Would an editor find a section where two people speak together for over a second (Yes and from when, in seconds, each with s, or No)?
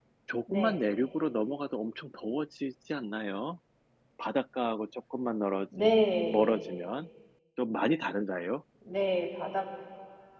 No